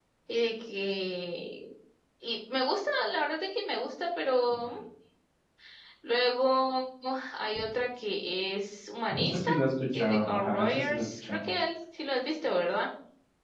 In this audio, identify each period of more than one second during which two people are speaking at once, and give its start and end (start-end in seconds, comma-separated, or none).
9.9-11.4